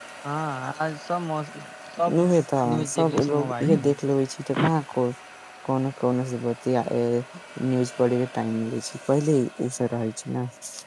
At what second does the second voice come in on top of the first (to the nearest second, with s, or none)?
3 s